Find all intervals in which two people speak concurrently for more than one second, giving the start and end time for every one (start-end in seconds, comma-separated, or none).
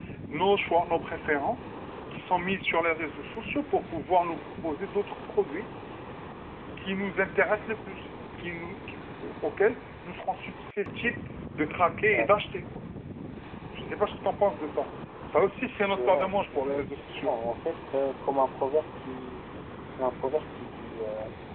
16.0-17.3